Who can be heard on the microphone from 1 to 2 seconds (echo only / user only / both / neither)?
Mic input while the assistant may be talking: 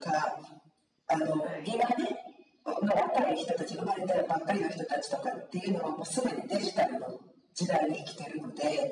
both